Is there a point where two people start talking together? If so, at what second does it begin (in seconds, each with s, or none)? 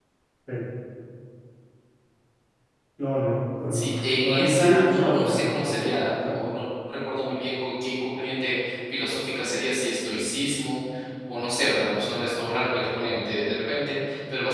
3.7 s